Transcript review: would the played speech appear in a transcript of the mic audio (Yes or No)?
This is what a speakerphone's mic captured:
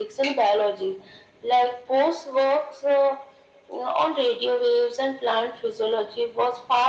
Yes